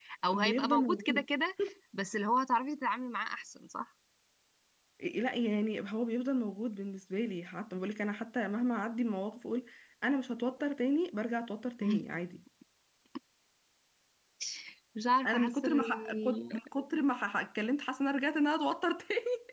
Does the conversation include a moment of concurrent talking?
Yes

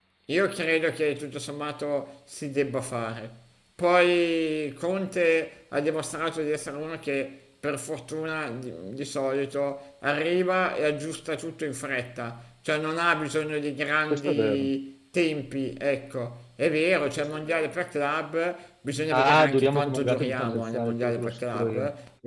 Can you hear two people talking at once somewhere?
Yes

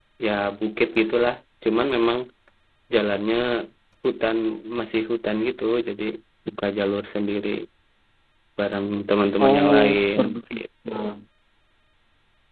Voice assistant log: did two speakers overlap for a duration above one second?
Yes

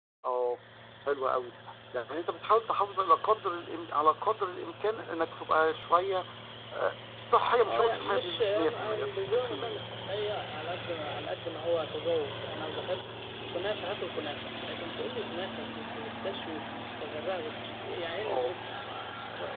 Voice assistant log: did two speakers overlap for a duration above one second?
Yes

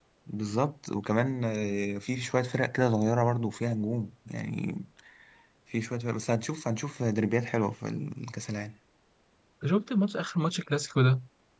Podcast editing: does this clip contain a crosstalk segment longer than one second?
No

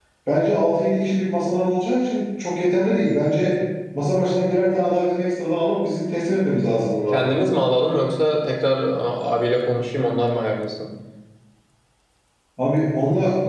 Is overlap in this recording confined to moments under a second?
Yes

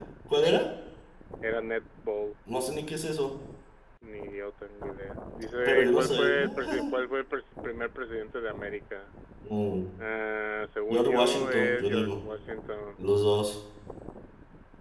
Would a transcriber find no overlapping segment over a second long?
No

